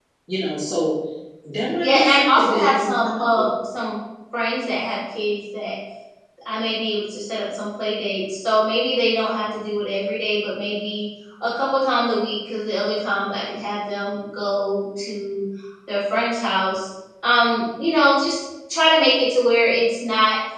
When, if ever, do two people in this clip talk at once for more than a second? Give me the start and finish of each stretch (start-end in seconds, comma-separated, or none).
1.8-3.5